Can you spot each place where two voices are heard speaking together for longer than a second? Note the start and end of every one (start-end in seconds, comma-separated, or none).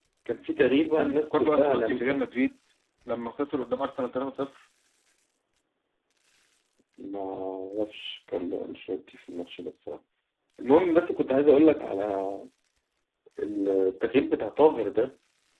1.0-2.2